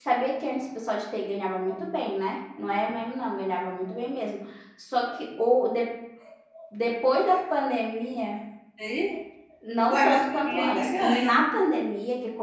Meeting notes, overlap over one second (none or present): present